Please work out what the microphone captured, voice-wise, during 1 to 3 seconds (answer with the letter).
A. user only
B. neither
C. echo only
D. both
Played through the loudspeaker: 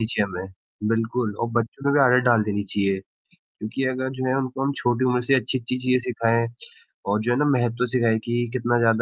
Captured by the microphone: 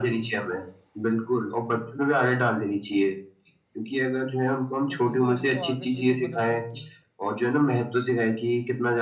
C